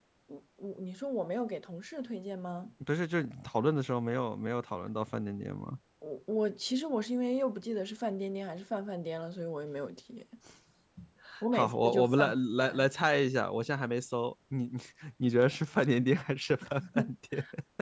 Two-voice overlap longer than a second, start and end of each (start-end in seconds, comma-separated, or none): 11.5-12.8